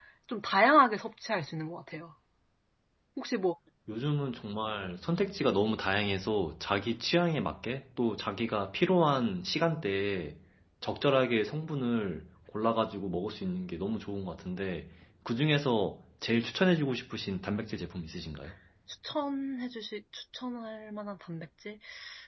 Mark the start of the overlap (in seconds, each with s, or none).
none